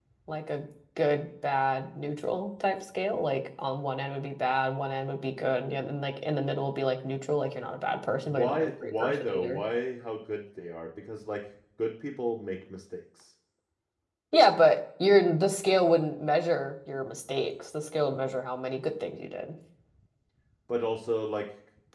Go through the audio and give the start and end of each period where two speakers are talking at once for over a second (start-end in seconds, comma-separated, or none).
8.2-9.6